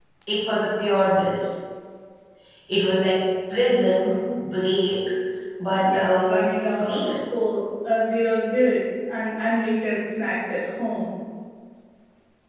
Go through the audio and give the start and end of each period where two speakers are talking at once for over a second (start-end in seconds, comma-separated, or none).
5.8-7.2